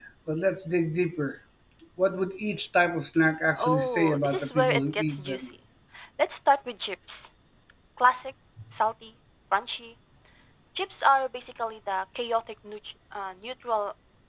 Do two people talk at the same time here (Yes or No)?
Yes